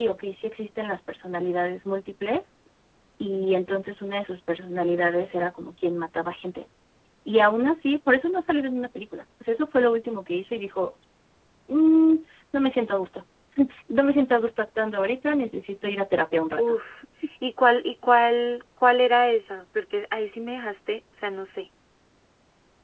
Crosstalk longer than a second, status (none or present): none